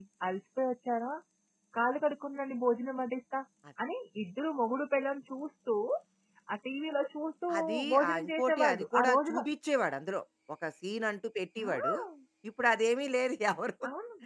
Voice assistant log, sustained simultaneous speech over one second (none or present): present